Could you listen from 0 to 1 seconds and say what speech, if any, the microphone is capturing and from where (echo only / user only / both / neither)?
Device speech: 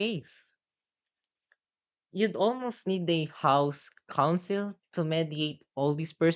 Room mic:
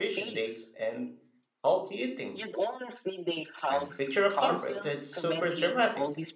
both